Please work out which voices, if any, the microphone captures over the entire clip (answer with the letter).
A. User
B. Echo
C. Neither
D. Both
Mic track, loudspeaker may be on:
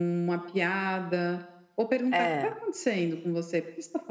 D